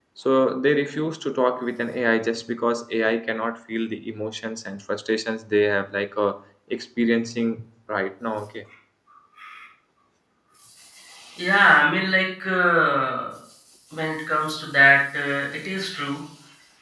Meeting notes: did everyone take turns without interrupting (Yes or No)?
Yes